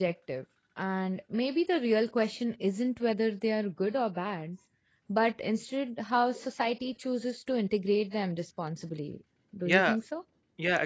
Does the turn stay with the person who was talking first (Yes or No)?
No